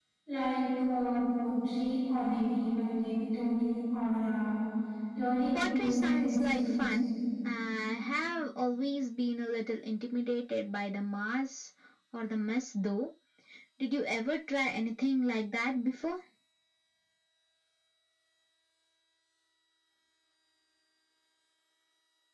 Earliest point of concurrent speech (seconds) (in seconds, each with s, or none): 5.5 s